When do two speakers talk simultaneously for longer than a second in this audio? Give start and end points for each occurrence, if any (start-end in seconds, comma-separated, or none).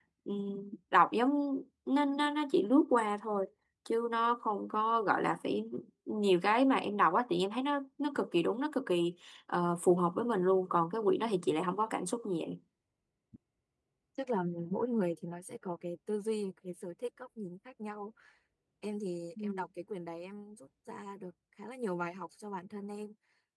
none